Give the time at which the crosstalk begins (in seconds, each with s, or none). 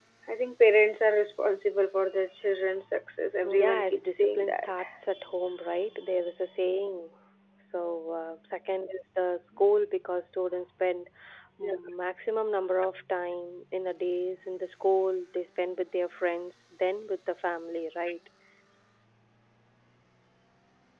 3.4 s